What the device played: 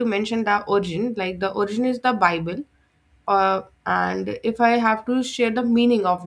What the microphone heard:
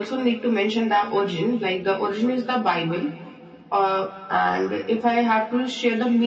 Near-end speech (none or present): none